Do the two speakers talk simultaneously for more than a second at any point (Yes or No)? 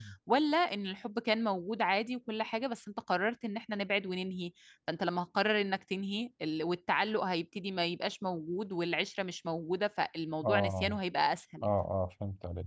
No